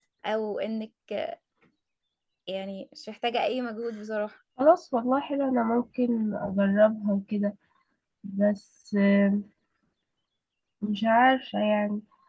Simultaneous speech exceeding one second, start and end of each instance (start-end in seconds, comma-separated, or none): none